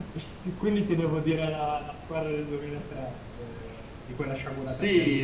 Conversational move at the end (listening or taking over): taking over